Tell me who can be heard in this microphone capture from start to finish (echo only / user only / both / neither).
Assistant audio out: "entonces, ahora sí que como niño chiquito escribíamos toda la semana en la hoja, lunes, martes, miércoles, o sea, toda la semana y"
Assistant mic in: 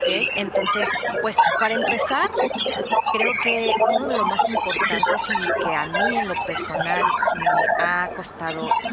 both